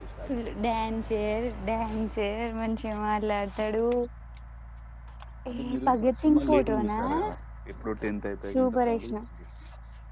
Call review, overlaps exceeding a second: present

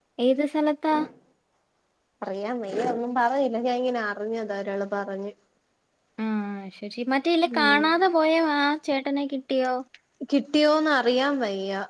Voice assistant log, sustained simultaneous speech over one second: none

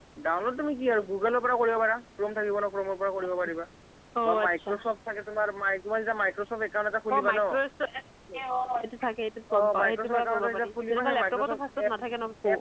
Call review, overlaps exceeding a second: present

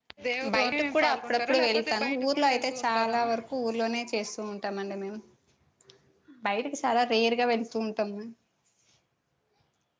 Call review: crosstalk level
present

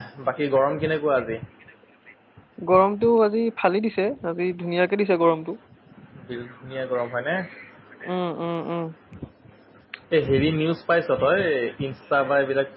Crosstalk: none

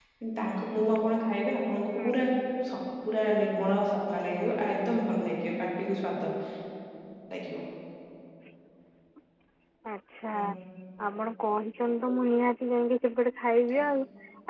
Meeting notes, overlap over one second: none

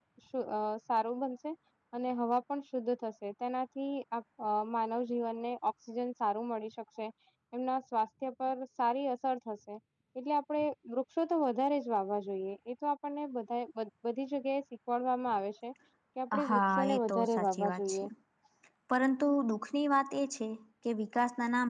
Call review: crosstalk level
present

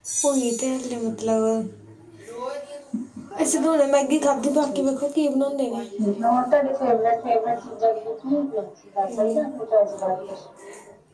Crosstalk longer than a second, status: none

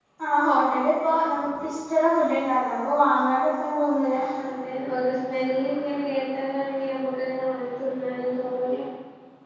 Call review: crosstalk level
none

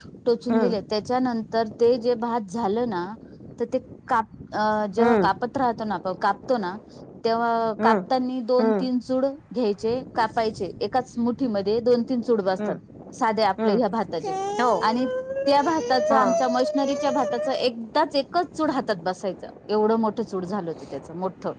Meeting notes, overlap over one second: none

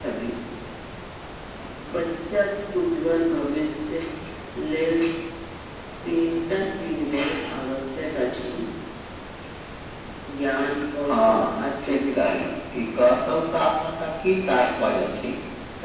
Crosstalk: present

